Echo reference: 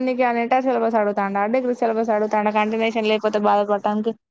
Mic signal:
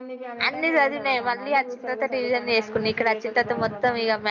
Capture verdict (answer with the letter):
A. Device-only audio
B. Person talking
B